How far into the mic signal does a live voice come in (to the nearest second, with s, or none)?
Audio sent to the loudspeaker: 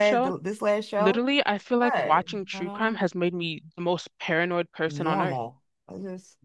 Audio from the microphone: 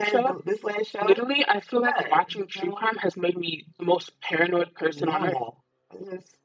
none